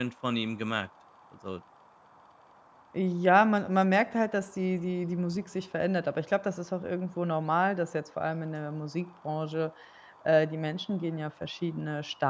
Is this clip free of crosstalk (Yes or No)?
Yes